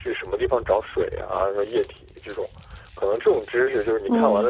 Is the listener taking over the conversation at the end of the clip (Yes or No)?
No